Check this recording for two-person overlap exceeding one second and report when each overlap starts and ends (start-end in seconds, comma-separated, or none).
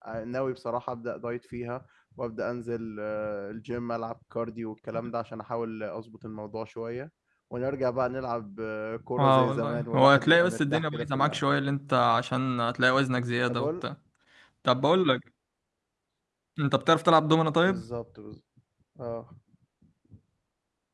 9.2-11.4